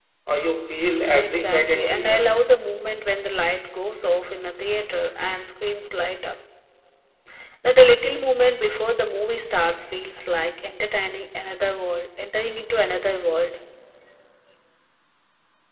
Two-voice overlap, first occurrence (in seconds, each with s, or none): 1.1 s